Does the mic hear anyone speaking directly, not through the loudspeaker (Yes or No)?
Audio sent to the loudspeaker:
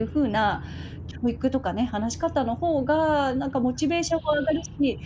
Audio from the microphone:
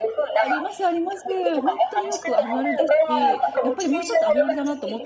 Yes